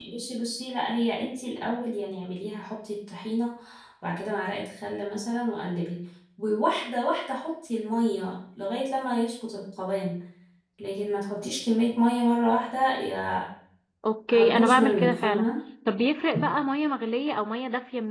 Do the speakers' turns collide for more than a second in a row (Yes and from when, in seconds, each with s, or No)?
Yes, from 14.3 s